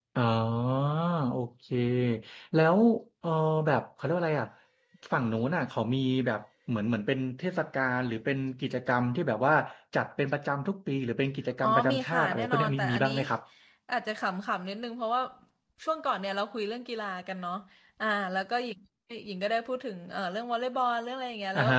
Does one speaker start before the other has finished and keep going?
Yes, from 11.6 s

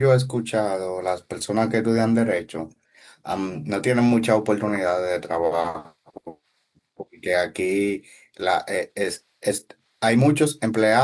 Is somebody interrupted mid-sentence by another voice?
No

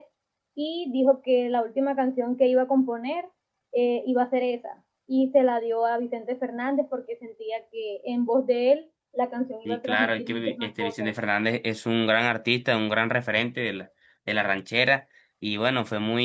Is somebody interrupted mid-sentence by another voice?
Yes, from 9.7 s

